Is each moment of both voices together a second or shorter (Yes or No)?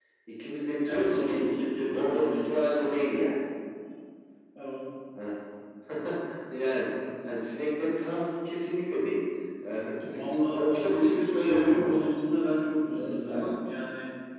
No